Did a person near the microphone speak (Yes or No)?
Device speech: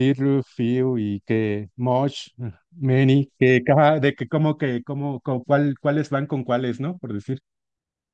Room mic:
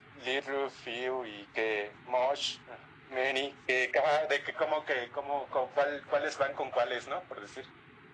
No